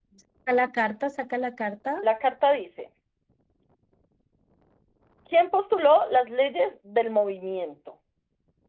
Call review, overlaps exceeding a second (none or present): none